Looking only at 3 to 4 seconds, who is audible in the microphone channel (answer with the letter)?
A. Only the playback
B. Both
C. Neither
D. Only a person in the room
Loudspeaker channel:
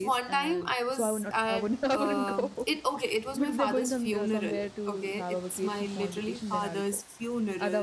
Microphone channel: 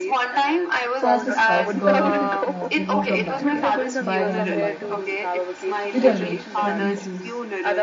B